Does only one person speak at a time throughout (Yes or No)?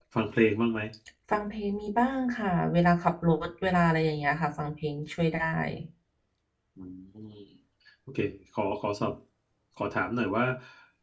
Yes